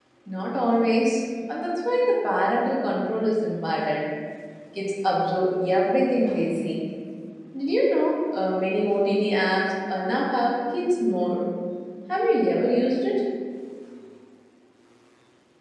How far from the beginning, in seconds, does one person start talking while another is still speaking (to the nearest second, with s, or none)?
none